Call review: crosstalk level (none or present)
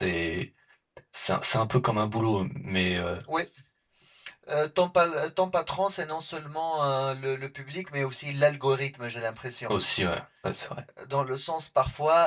none